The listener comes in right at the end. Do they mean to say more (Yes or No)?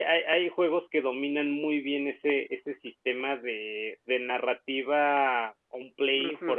Yes